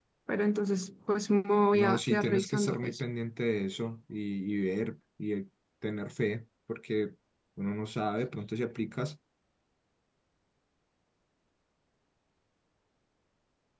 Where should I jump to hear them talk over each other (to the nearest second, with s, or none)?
2 s